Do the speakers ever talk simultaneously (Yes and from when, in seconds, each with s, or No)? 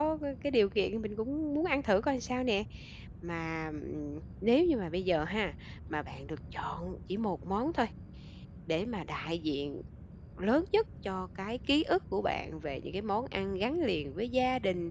No